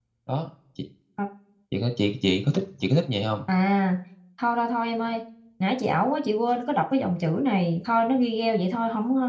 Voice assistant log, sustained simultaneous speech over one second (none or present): none